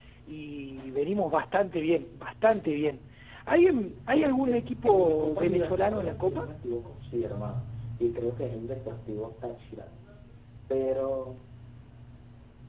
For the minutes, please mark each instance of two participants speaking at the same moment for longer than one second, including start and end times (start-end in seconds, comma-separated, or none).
4.2-6.4